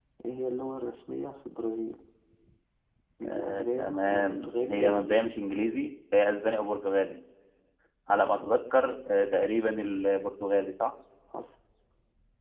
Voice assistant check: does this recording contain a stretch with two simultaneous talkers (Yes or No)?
Yes